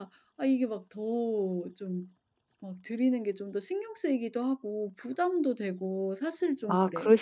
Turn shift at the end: Yes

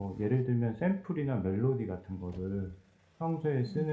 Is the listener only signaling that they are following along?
Yes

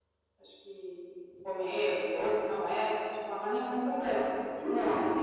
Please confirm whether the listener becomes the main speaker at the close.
No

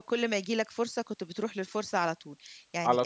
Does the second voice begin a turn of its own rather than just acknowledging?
No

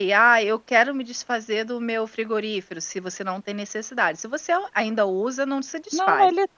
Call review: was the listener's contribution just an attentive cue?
No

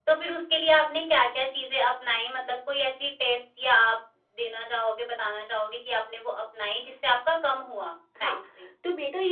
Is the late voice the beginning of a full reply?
Yes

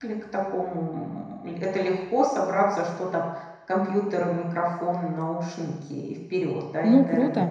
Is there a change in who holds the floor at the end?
Yes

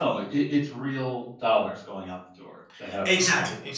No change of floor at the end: No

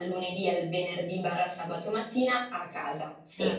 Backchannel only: Yes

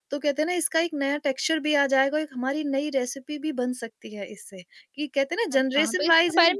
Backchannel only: No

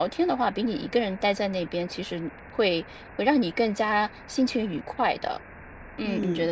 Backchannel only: No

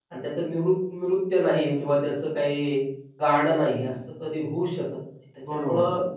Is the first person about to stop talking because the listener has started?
No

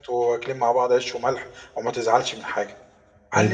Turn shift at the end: Yes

